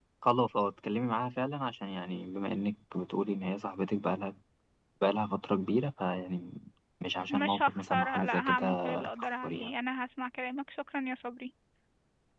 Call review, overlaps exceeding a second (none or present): present